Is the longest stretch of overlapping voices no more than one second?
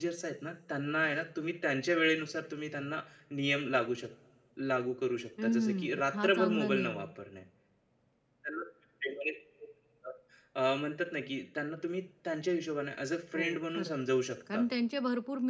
No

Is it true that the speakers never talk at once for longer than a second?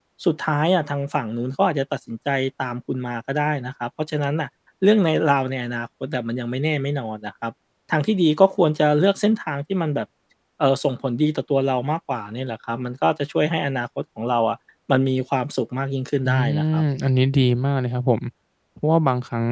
Yes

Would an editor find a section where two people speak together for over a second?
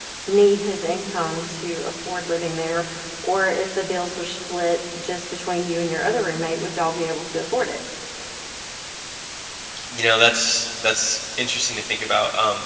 No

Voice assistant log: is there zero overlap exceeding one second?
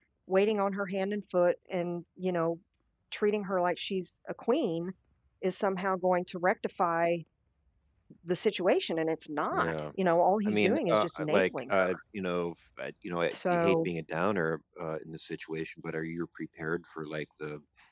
No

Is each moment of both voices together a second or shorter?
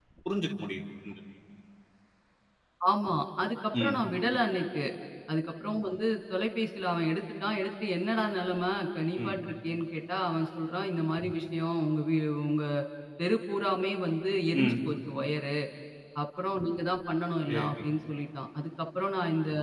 Yes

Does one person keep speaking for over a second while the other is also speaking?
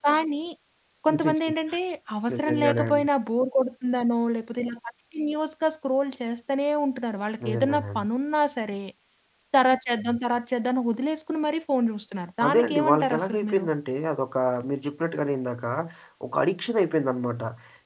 Yes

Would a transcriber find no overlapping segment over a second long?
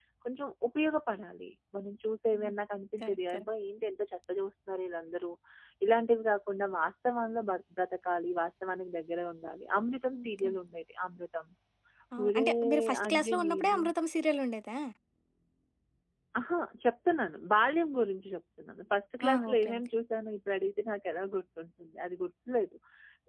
No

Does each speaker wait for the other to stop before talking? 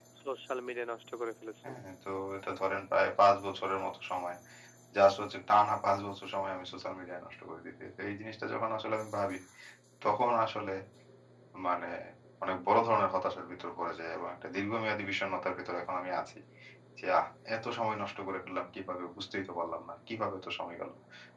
Yes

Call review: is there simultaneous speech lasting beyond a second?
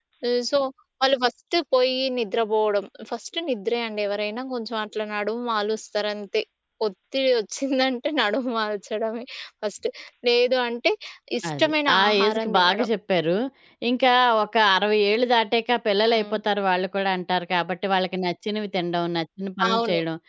Yes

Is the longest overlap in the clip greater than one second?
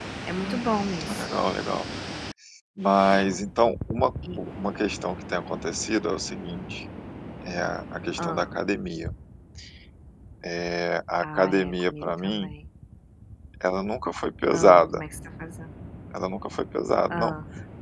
Yes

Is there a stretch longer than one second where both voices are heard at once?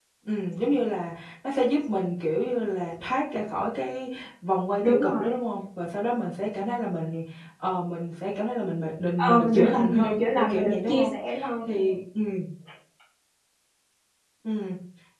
Yes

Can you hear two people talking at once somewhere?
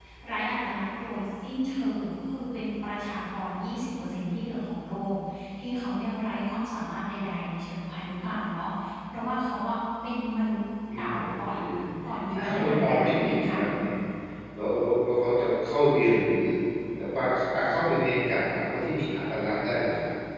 Yes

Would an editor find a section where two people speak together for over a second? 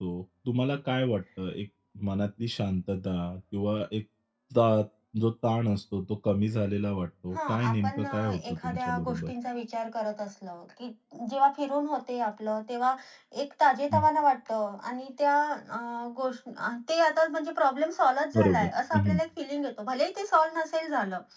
Yes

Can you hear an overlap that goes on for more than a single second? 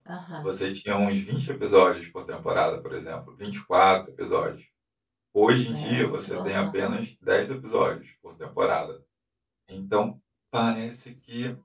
Yes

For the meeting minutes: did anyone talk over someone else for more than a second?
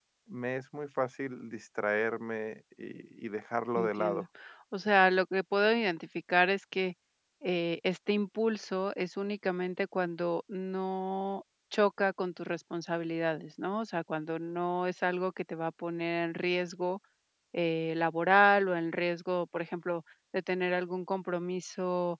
No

